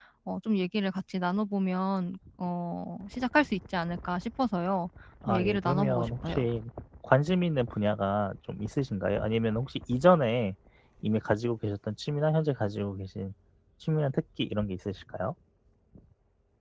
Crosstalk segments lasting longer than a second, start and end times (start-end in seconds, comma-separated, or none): 5.3-6.5